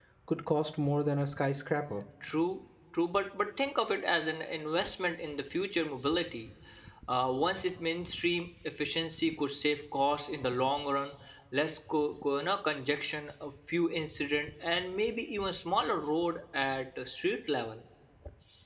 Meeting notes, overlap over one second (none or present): none